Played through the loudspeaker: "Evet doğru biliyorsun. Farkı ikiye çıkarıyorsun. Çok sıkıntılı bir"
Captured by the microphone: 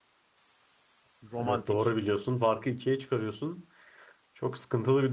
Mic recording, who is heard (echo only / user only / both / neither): both